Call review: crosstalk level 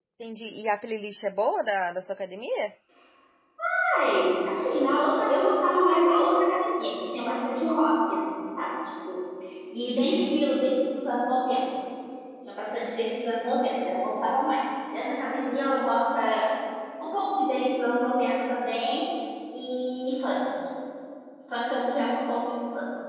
none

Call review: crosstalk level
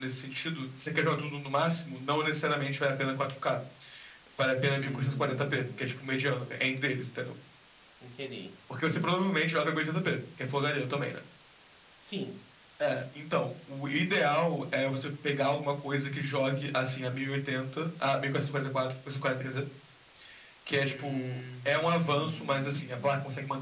present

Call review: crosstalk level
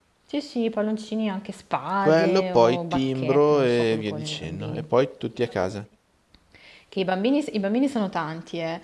present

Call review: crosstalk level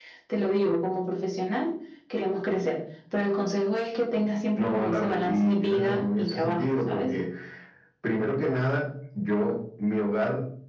present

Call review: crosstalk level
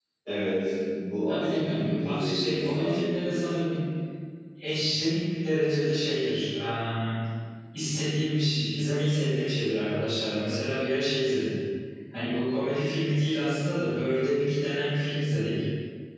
present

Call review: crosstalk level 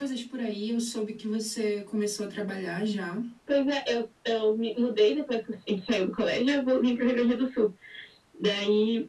none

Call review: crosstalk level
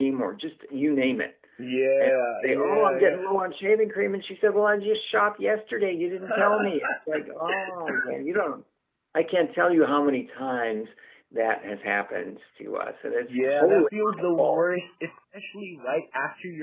present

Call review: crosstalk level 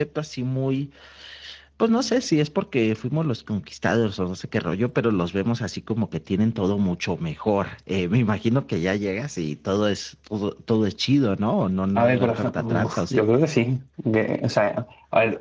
present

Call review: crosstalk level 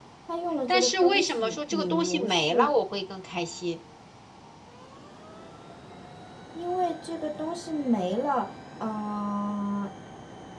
present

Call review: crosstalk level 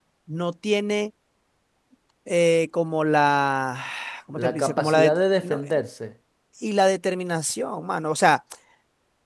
present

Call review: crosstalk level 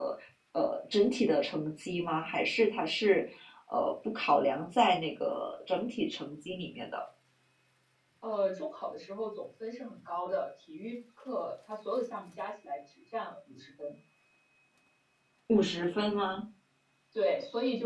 none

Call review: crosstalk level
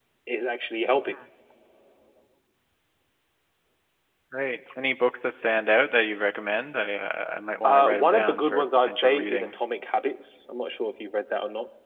present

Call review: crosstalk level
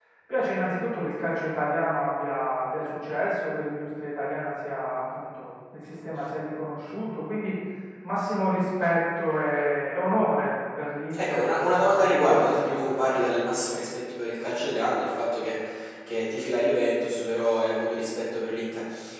present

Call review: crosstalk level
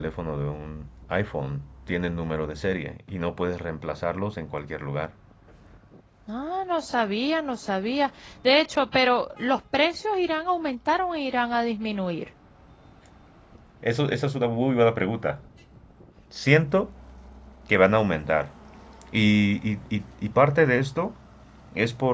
none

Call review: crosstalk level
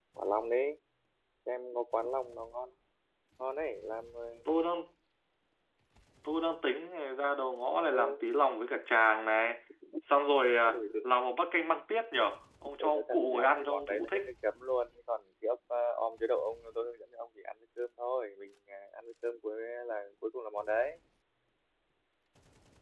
present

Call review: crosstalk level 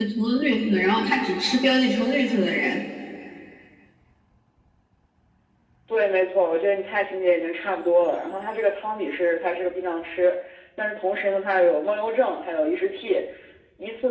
none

